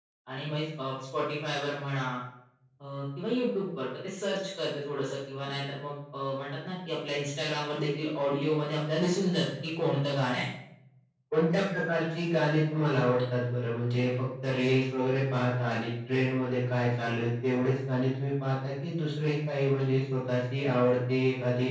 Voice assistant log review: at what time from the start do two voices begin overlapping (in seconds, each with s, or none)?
none